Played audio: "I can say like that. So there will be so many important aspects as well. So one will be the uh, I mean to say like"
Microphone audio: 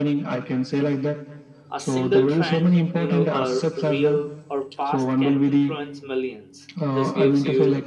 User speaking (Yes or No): Yes